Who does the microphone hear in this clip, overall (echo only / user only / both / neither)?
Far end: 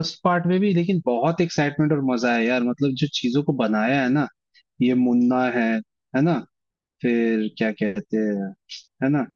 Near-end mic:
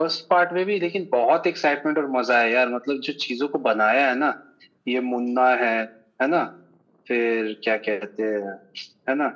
echo only